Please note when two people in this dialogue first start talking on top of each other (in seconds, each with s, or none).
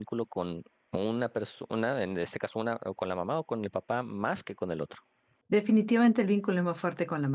none